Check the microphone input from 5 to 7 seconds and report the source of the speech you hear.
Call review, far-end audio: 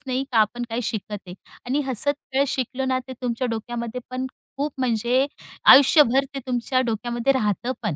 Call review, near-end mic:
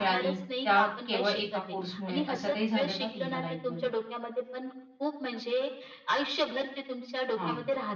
echo only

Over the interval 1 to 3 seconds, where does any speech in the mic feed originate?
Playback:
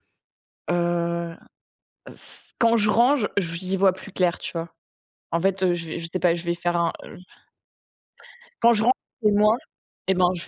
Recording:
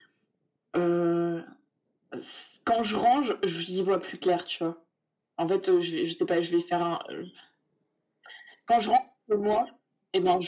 echo only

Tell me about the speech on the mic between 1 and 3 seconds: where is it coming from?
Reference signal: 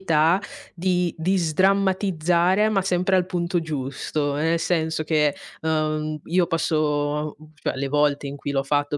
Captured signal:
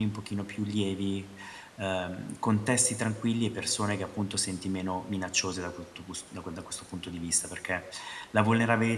user only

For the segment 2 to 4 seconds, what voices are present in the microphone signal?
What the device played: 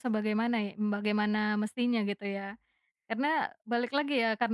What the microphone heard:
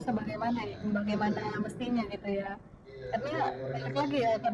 both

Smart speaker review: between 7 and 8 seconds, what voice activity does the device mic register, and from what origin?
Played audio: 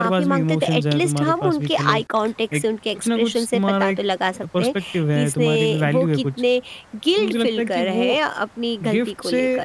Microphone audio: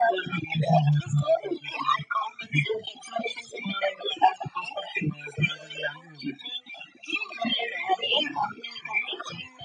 echo only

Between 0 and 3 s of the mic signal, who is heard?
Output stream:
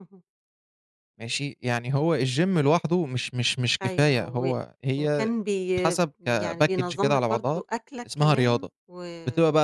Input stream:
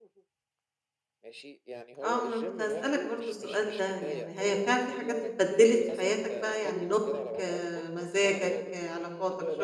both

